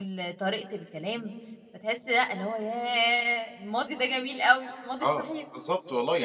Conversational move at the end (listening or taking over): taking over